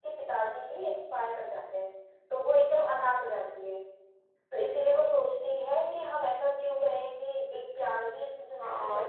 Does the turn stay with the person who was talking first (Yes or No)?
No